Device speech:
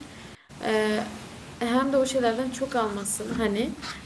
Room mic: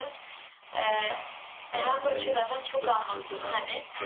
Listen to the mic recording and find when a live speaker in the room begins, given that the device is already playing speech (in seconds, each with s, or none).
1.7 s